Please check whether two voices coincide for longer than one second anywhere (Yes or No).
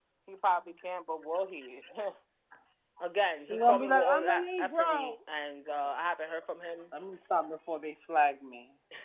Yes